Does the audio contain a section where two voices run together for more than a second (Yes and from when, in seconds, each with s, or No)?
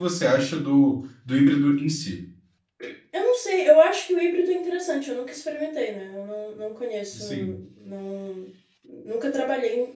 No